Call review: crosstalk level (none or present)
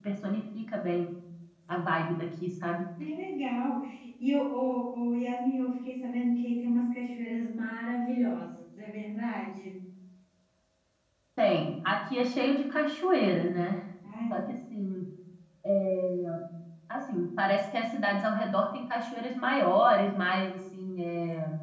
none